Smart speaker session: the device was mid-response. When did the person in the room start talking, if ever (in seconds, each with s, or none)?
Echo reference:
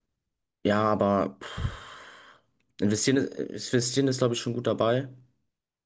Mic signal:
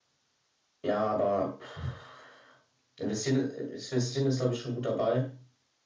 none